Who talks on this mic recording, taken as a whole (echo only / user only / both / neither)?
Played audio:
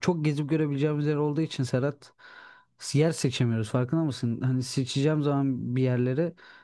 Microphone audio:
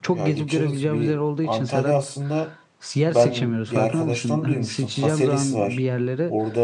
both